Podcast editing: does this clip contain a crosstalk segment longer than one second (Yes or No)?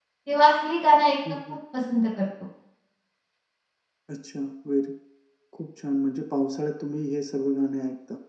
No